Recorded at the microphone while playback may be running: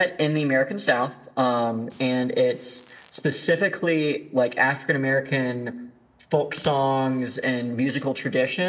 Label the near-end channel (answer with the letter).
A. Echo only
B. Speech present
A